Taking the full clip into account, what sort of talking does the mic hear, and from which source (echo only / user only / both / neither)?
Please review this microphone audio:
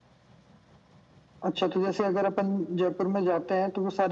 echo only